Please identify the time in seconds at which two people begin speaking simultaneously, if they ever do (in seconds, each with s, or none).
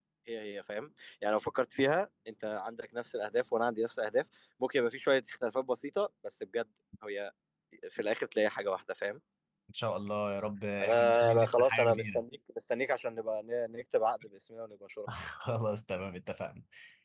10.8 s